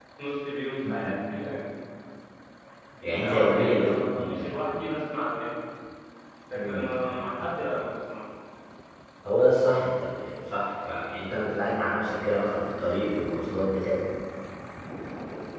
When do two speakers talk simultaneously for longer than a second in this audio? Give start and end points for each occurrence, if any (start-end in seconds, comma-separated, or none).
3.2-4.6